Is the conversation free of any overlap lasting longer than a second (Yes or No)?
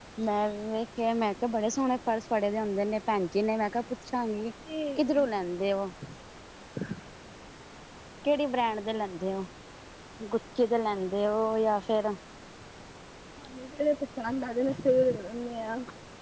Yes